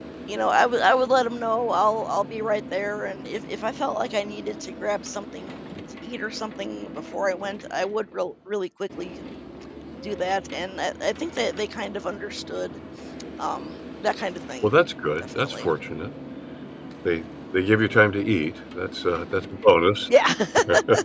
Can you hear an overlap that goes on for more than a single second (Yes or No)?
No